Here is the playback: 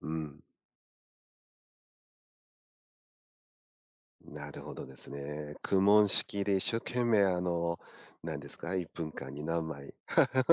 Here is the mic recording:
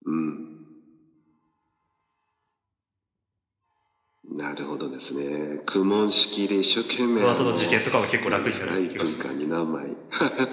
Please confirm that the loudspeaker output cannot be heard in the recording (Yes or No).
No